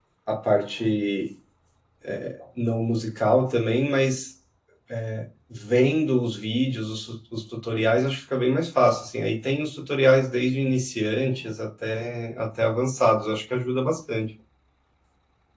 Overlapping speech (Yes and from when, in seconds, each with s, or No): No